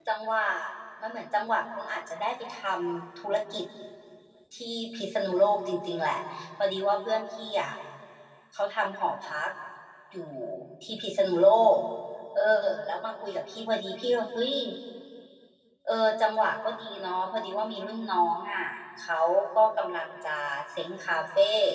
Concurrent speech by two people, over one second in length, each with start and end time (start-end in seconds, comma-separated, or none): none